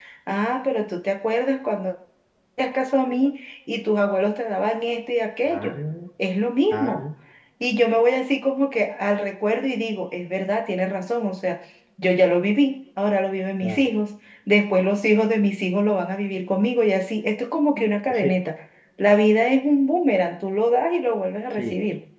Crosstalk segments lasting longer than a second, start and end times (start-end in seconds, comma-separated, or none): none